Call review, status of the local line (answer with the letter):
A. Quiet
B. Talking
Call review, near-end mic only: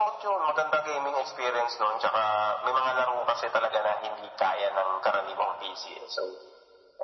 A